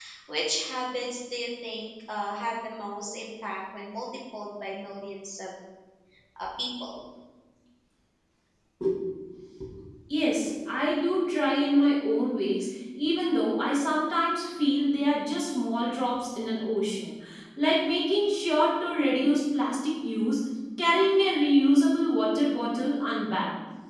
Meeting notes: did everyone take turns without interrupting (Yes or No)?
Yes